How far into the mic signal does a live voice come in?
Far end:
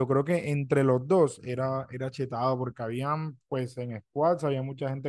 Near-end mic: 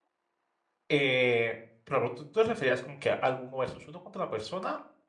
1 s

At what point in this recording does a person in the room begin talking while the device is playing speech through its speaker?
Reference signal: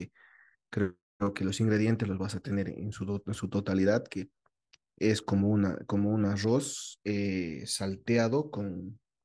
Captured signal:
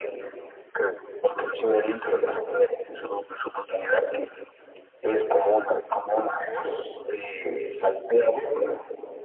none

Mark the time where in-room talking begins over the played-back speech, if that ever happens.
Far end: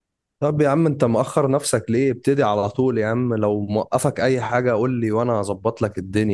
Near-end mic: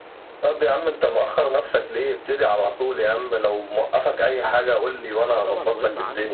5 s

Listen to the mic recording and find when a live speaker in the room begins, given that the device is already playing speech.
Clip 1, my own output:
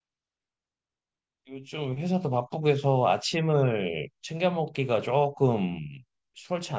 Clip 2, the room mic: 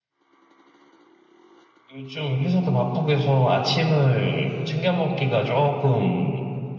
none

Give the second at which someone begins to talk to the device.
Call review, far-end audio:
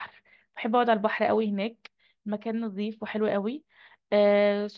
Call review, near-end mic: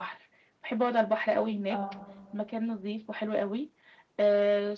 2 s

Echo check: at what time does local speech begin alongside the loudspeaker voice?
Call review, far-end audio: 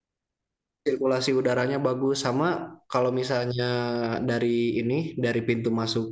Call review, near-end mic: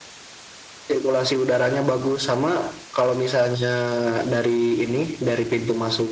none

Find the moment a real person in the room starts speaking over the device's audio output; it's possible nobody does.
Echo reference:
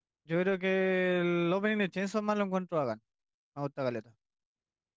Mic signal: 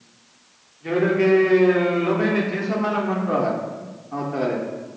none

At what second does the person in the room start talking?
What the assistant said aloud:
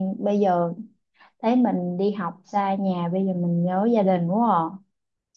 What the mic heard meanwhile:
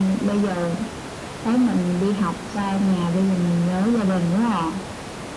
none

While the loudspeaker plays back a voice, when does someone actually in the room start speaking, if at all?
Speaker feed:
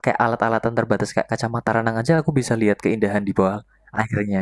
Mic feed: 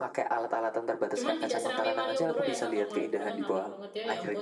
1 s

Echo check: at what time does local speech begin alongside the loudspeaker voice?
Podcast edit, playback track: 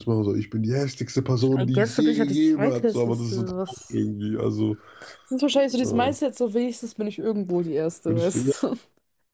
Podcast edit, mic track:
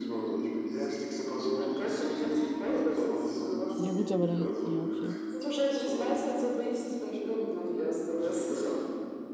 4 s

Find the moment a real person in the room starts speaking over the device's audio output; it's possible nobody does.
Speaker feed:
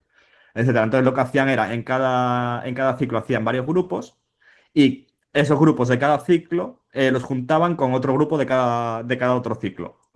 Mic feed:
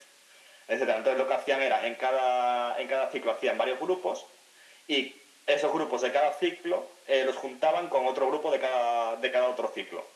none

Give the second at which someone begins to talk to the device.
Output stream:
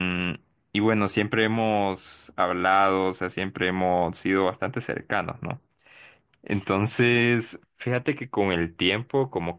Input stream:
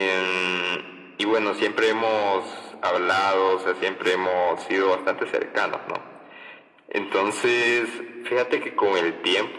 none

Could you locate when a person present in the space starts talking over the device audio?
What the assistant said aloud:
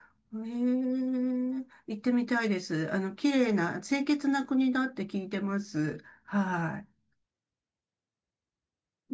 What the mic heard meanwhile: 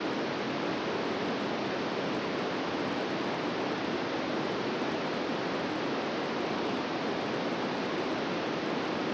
none

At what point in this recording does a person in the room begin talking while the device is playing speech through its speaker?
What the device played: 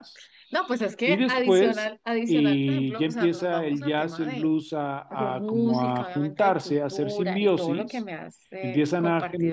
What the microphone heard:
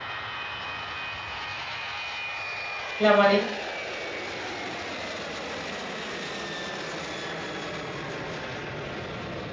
3 s

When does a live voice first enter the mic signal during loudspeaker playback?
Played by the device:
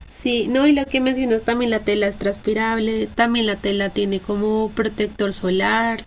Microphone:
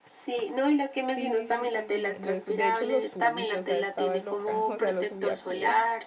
1 s

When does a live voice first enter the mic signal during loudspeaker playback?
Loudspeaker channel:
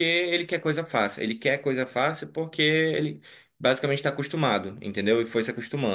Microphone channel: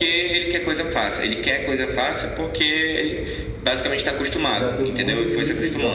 5 s

